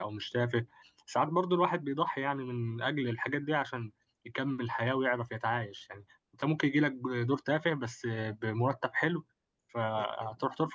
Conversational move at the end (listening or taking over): listening